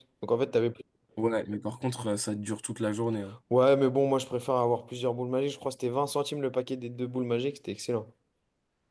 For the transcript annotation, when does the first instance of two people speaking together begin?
none

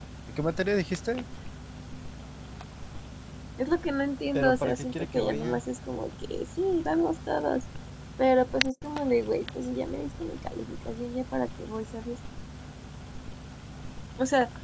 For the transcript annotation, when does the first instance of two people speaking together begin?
4.3 s

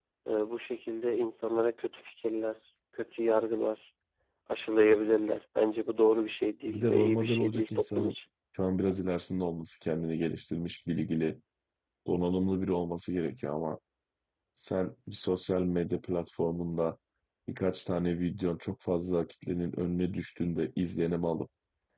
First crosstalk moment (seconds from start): 6.7 s

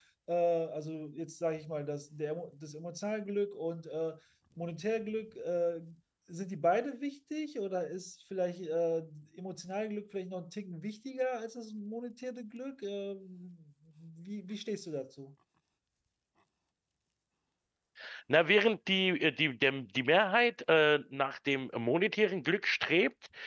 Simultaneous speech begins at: none

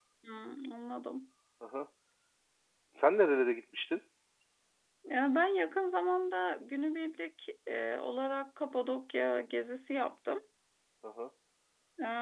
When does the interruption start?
none

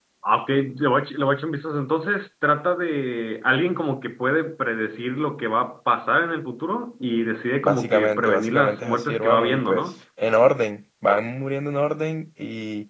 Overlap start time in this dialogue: 7.6 s

